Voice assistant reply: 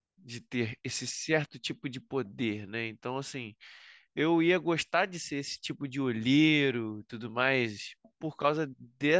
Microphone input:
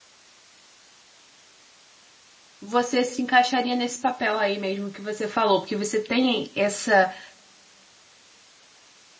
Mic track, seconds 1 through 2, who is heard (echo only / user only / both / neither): neither